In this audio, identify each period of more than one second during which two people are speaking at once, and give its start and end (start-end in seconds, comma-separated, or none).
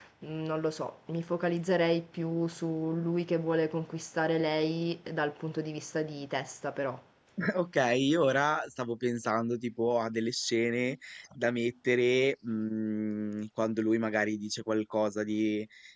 none